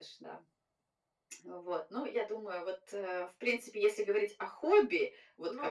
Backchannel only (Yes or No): Yes